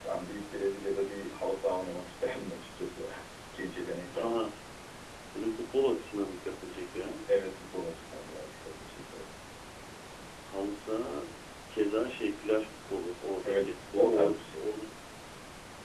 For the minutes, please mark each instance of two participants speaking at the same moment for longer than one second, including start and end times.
13.4-14.6

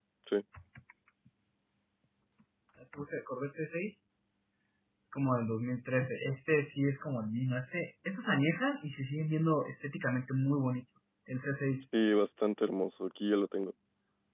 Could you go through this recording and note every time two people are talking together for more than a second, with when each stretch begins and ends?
none

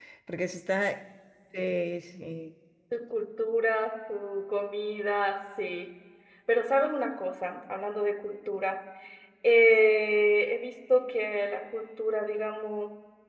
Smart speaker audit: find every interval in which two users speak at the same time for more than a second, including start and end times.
none

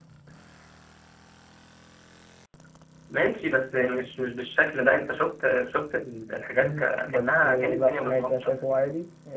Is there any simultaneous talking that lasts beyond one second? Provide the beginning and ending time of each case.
6.6-8.9

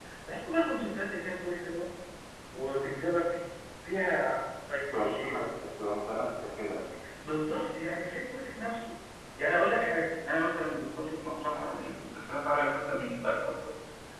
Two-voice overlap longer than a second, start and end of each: none

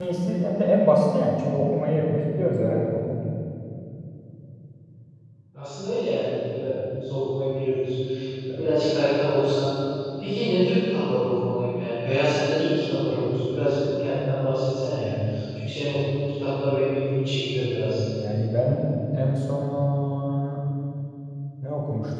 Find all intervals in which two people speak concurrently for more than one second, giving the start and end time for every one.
none

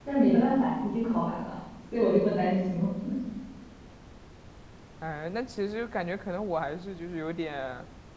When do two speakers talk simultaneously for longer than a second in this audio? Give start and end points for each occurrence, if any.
none

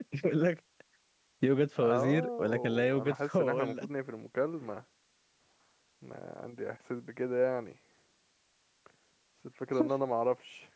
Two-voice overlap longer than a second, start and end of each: 1.8-3.9

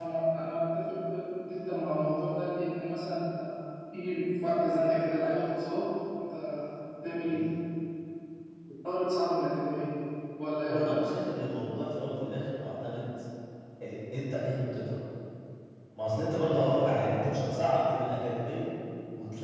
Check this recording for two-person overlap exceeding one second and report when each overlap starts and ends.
none

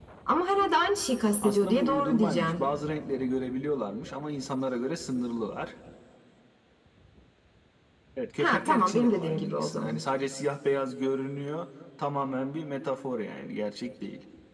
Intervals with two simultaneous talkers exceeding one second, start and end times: 1.4-2.6, 8.4-10.0

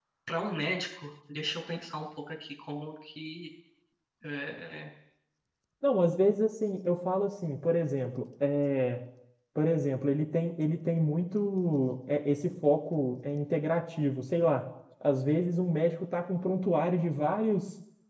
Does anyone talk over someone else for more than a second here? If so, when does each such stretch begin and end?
none

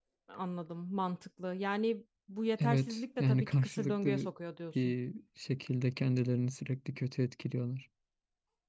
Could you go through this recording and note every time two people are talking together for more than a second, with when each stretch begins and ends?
2.6-4.3

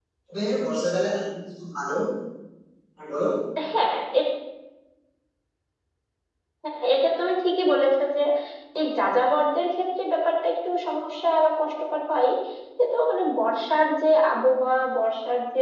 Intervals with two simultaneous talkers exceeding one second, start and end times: none

